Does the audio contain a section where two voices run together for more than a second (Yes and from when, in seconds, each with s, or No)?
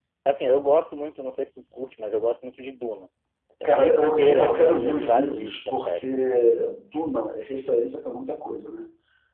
Yes, from 3.6 s